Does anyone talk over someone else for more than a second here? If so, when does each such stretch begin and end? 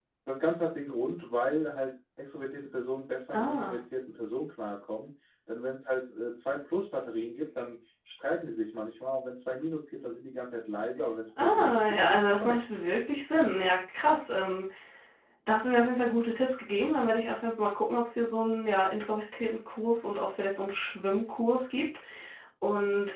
11.4-12.8

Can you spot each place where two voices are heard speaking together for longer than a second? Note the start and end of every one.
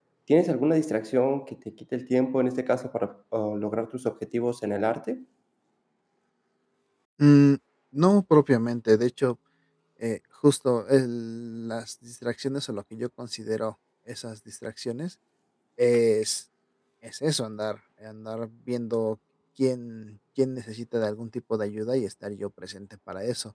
none

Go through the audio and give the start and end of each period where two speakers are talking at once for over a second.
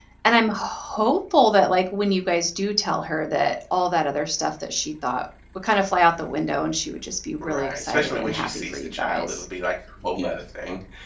7.4-9.5

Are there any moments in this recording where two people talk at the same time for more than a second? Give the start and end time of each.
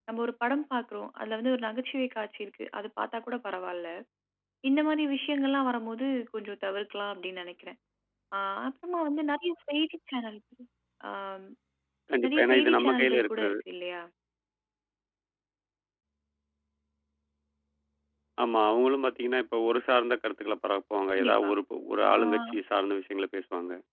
12.2-13.6

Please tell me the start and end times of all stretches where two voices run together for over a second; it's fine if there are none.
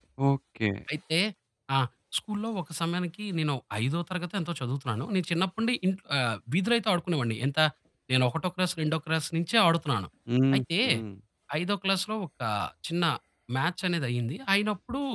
none

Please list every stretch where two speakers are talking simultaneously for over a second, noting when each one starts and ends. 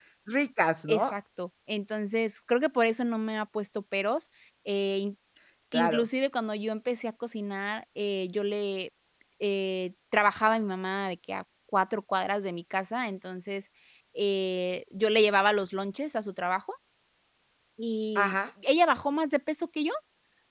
none

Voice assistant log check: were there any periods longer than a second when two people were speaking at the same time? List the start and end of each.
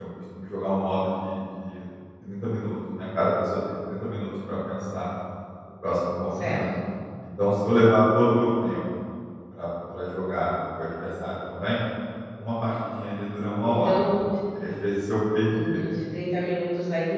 none

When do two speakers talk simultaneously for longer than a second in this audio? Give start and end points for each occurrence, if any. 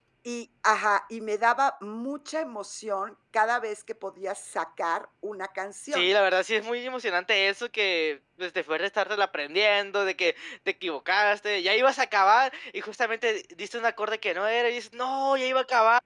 none

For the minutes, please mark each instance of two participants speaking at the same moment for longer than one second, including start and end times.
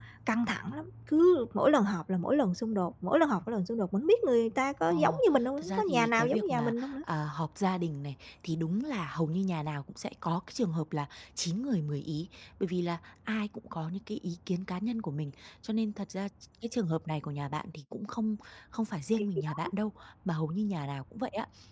5.6-6.9

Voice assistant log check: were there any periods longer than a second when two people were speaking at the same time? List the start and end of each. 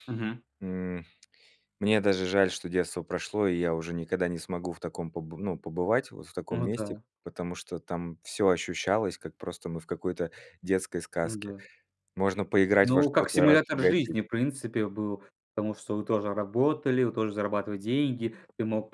12.8-14.2

